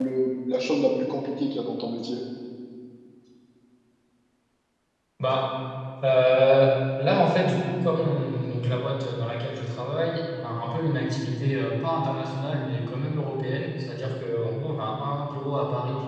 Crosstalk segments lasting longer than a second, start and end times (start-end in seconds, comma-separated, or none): none